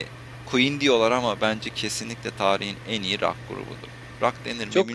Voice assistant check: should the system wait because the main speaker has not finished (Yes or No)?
No